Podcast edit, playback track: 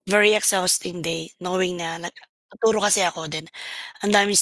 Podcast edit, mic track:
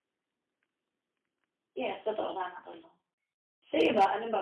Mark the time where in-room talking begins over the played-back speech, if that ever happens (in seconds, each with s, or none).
1.8 s